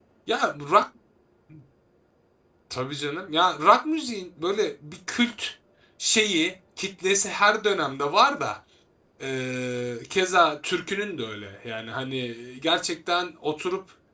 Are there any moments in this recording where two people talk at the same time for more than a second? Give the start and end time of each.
none

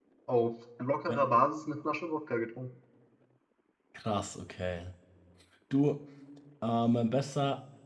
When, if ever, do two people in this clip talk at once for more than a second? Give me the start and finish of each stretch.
none

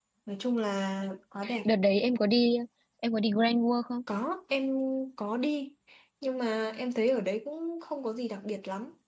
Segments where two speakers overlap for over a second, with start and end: none

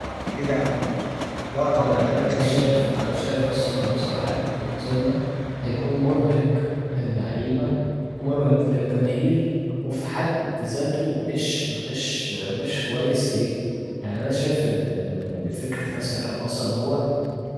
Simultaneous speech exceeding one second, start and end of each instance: 1.8-3.0

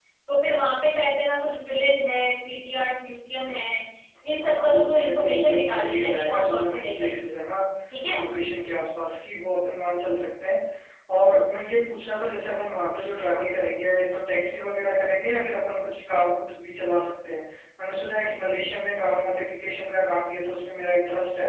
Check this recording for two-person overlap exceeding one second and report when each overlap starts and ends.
4.6-7.1

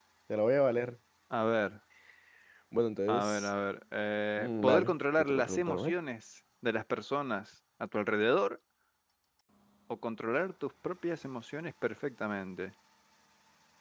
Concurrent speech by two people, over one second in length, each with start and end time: 4.4-5.9

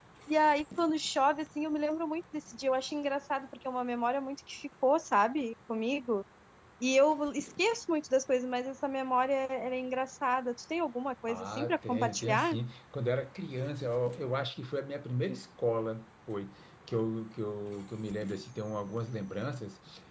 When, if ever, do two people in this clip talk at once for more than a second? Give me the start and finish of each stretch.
11.3-12.5

